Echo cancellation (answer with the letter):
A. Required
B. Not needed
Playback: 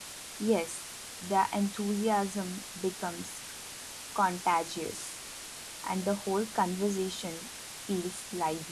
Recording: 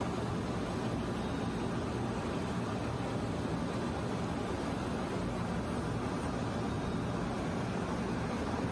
B